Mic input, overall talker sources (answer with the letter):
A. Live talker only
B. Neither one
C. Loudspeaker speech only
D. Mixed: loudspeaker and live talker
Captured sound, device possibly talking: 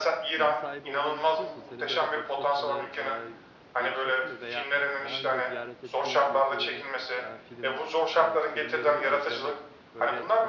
D